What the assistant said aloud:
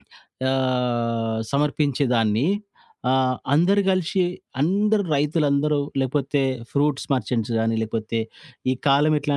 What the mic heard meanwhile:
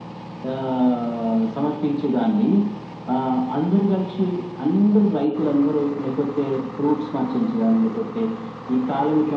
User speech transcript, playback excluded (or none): none